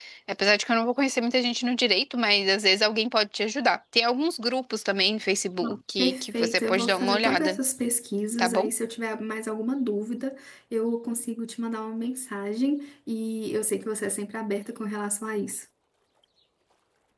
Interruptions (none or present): present